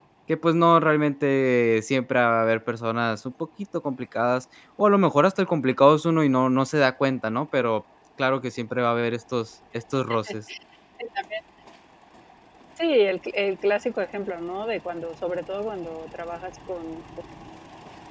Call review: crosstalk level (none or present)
none